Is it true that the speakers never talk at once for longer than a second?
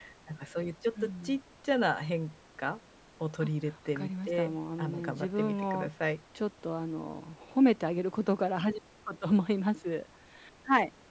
No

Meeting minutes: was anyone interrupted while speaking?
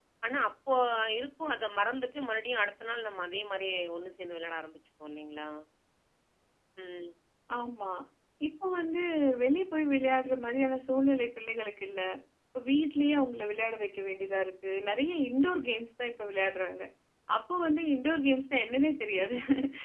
No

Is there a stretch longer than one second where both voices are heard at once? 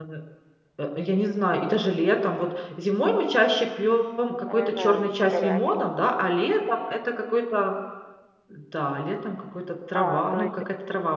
Yes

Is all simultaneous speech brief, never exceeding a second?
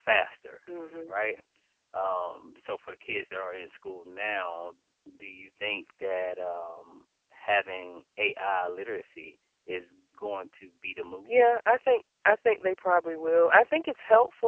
Yes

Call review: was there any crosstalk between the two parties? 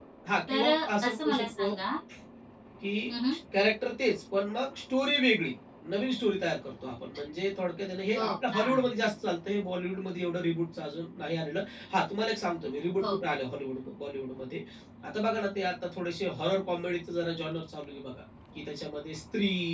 Yes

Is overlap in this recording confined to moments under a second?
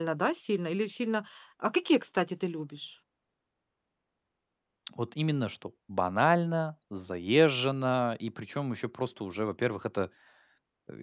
Yes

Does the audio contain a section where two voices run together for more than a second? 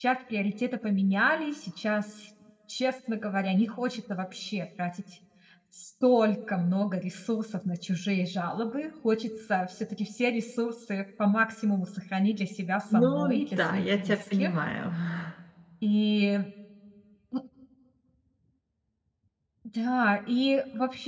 Yes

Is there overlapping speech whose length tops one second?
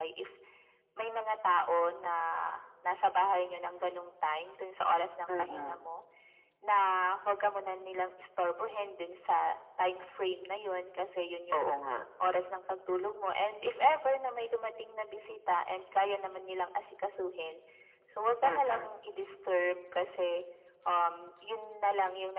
No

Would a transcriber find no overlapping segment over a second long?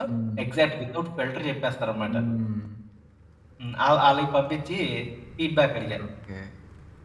Yes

